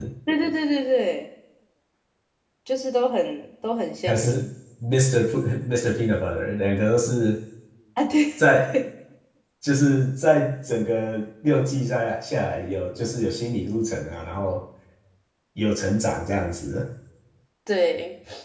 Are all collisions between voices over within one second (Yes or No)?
Yes